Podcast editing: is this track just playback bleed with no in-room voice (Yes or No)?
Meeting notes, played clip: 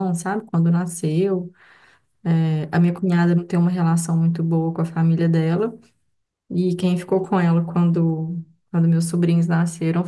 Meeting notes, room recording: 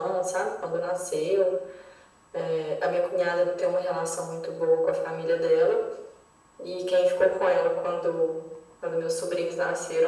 Yes